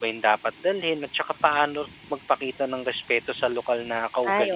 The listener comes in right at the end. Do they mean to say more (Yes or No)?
Yes